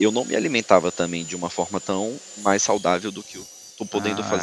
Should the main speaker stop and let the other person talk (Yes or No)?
Yes